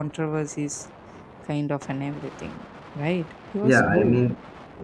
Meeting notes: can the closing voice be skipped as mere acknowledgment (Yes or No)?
No